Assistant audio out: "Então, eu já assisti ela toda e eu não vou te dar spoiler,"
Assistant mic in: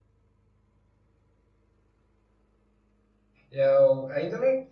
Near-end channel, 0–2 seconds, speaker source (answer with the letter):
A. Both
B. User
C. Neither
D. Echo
C